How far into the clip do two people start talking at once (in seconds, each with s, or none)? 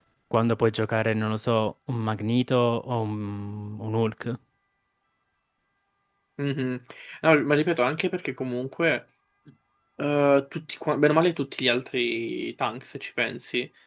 none